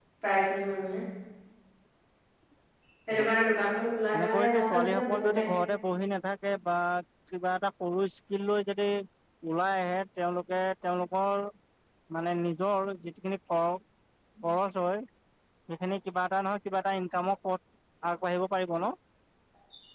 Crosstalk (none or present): present